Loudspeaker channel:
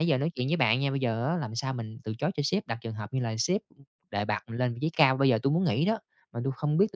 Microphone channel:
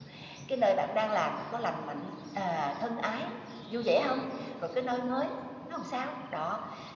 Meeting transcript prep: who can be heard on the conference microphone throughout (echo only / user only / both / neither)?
user only